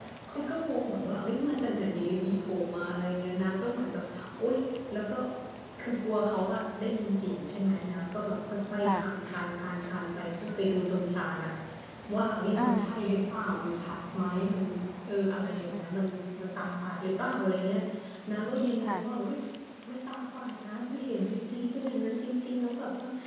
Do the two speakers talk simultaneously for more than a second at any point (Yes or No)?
No